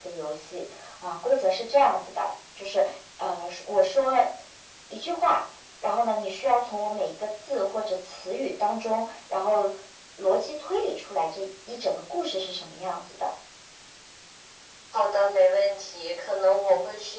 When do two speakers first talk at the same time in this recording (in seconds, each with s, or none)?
none